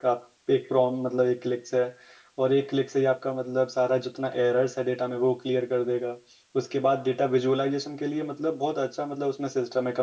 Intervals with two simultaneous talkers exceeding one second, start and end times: none

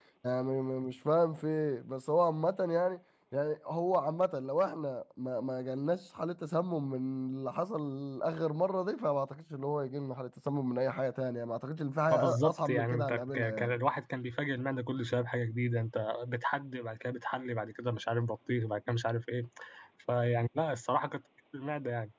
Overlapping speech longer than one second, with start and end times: 12.1-13.8

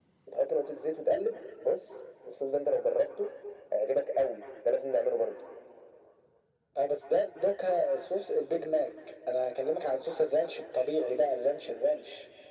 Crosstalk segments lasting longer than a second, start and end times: none

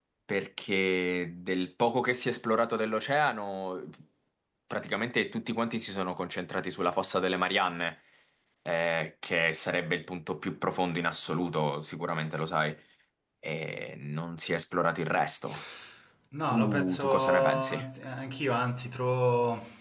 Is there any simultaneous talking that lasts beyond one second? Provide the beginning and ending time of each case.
16.5-17.8

